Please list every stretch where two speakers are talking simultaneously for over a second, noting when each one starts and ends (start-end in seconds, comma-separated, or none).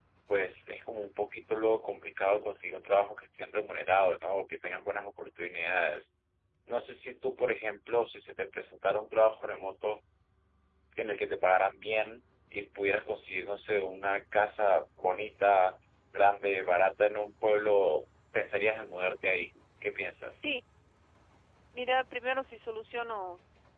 none